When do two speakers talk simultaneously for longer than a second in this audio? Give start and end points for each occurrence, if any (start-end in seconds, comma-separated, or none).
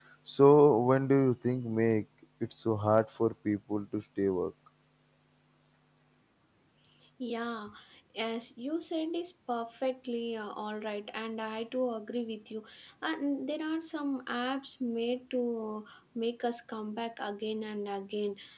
none